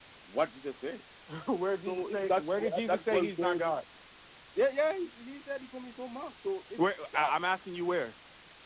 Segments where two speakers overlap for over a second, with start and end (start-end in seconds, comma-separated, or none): 1.9-3.6